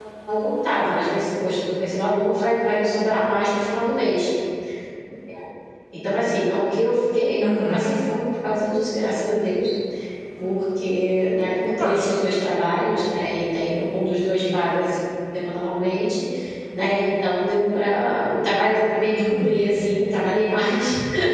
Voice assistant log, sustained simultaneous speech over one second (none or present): none